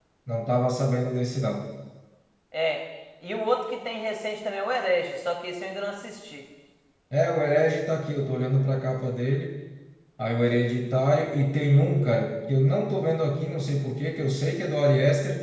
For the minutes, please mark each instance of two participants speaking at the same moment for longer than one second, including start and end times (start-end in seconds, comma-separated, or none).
none